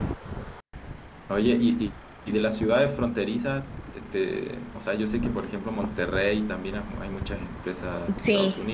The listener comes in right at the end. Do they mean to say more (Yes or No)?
No